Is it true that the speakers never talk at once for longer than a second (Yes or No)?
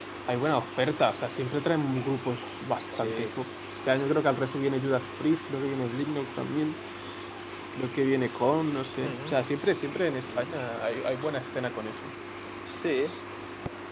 Yes